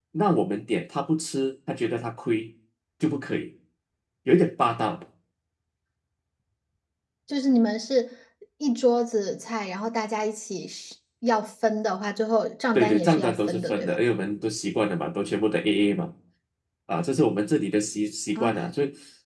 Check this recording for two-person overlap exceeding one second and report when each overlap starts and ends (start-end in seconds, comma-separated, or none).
12.7-14.0